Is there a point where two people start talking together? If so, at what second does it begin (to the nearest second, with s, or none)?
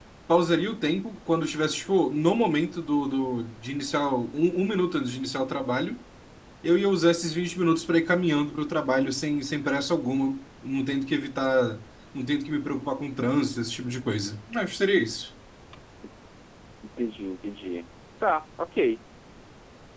none